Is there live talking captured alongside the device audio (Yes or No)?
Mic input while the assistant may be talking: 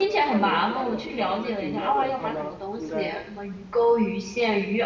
Yes